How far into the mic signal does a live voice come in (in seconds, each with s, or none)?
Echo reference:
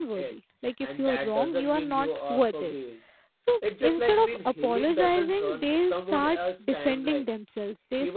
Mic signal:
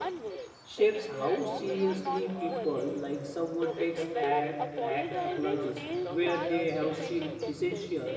0.6 s